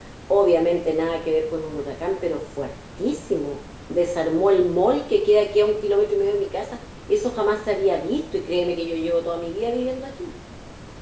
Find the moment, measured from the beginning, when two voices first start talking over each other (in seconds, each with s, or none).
none